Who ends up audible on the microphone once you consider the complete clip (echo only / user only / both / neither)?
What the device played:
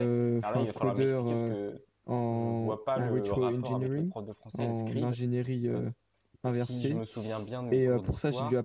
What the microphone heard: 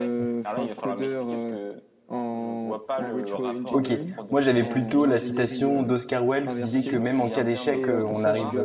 both